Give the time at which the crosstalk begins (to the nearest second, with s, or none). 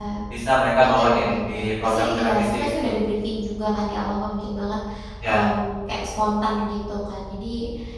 1 s